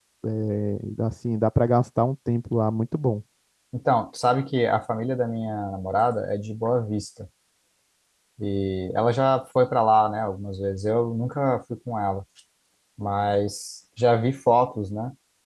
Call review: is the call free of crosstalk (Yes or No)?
Yes